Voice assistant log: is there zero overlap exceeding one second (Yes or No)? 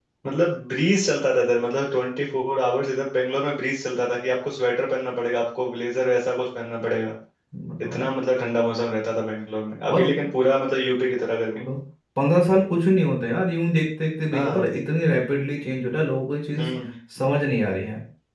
Yes